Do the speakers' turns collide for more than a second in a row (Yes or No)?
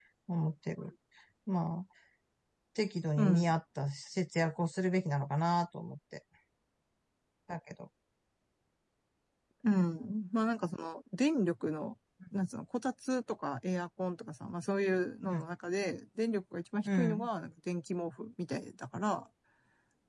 No